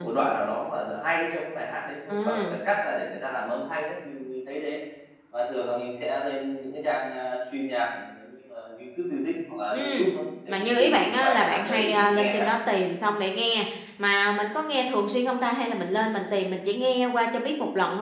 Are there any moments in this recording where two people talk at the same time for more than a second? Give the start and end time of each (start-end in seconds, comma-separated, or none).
10.5-12.3